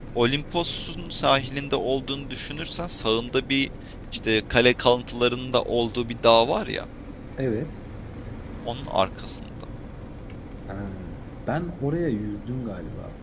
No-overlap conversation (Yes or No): Yes